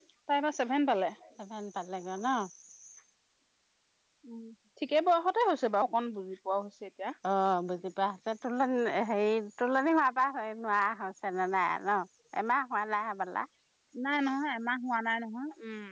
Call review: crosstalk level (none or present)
none